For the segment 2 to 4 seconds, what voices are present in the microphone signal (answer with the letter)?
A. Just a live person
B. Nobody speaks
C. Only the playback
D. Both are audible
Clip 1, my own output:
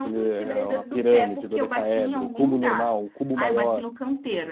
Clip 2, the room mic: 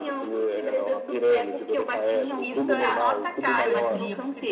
D